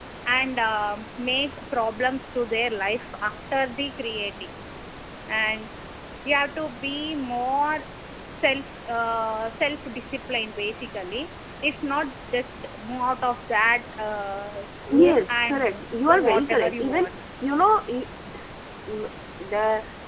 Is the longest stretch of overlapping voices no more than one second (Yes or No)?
No